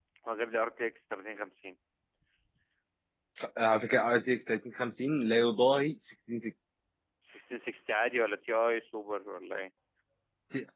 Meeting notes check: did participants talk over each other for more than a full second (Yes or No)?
No